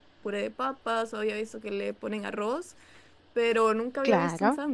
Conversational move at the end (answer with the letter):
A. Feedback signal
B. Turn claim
B